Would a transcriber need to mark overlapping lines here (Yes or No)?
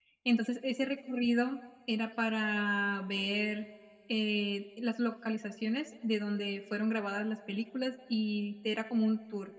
No